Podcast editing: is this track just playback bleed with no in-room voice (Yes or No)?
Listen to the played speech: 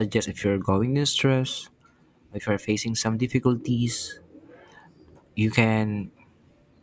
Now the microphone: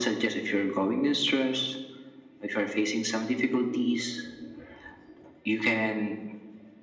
Yes